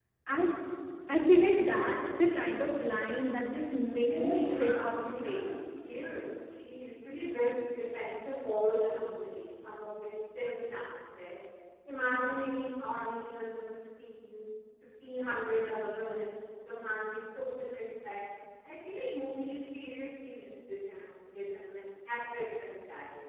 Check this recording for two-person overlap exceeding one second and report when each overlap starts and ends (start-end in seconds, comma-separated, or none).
4.1-5.4